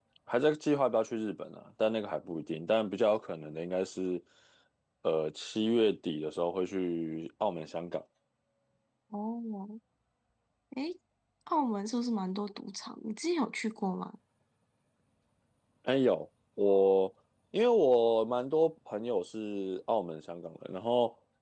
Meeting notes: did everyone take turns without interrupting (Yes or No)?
Yes